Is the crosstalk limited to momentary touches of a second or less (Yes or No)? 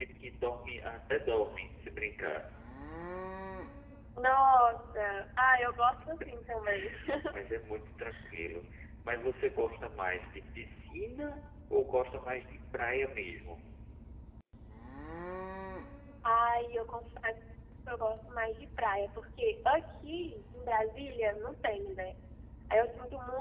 Yes